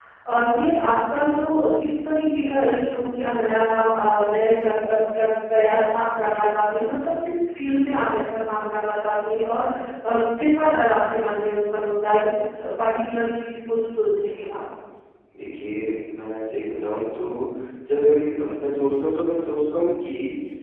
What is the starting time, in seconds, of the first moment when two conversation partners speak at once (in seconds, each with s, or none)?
none